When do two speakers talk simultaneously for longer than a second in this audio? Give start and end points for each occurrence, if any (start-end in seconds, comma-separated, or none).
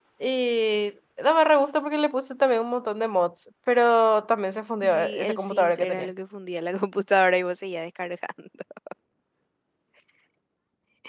4.8-6.1